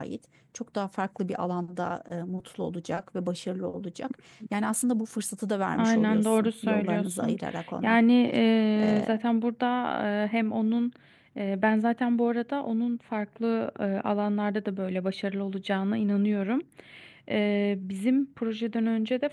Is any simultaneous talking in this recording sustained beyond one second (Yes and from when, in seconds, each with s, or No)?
Yes, from 5.8 s